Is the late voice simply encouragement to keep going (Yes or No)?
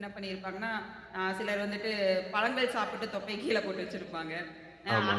Yes